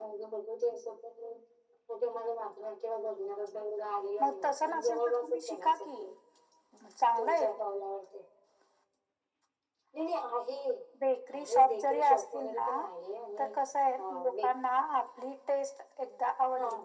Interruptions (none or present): present